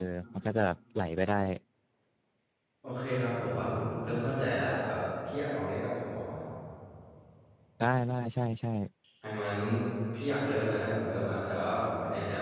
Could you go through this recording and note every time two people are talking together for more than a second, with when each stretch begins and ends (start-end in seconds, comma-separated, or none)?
none